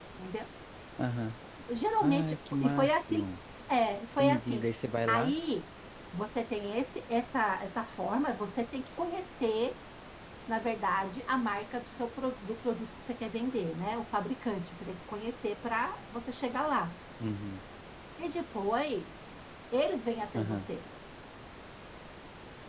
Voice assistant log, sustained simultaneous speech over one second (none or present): present